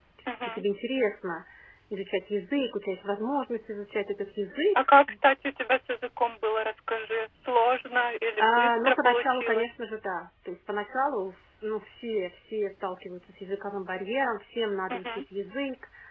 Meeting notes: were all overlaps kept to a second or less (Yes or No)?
No